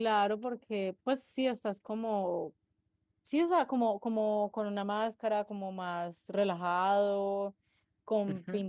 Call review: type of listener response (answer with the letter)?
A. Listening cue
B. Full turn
A